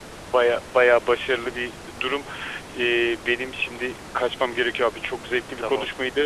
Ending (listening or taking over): listening